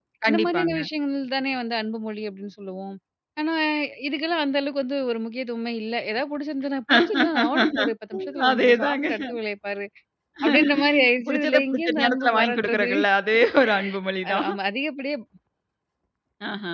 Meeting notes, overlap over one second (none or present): present